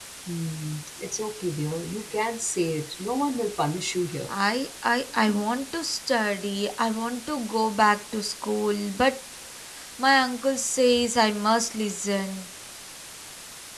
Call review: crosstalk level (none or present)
none